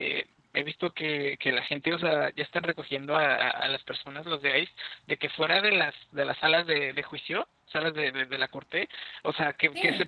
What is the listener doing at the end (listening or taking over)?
listening